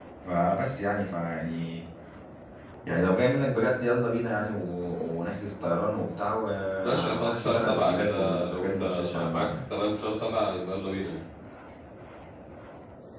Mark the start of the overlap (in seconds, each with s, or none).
6.8 s